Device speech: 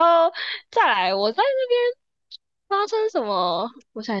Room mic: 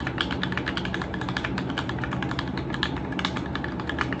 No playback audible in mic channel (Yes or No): Yes